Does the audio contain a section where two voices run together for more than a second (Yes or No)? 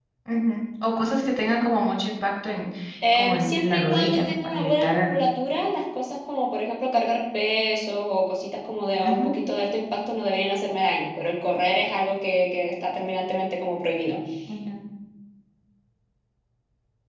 Yes